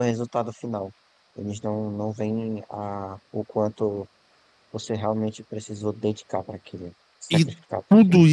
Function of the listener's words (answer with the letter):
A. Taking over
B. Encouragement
A